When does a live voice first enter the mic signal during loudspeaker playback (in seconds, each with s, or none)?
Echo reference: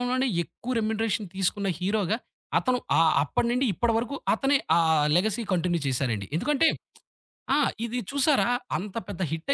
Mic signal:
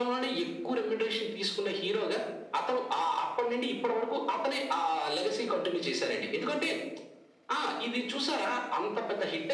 none